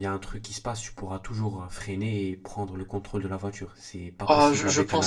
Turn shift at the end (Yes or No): Yes